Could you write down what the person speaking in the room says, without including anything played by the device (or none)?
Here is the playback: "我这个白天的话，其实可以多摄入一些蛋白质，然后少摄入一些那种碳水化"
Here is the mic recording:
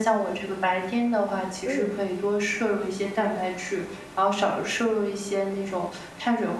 嗯